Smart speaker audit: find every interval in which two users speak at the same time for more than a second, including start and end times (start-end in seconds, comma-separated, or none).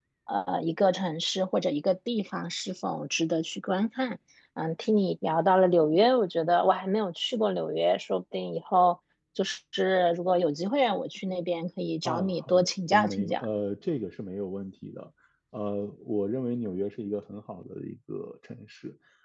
12.0-13.4